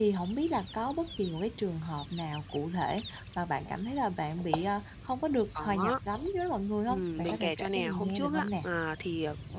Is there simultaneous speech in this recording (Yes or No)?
Yes